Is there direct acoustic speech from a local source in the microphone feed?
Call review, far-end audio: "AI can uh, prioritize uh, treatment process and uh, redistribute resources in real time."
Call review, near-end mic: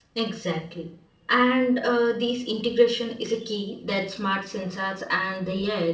Yes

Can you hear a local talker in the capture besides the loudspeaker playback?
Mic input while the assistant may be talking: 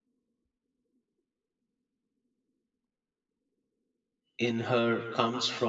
Yes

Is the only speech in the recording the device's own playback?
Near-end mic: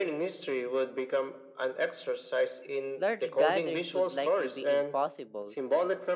No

